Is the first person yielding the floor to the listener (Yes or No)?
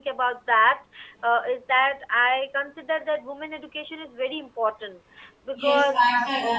Yes